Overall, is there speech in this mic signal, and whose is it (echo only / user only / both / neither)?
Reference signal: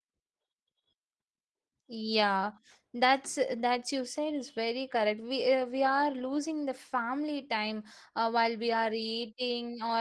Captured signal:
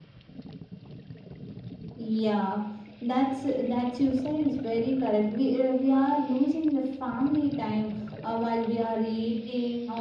echo only